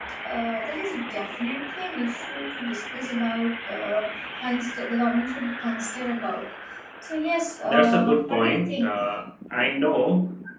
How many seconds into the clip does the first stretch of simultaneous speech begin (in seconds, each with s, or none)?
7.6 s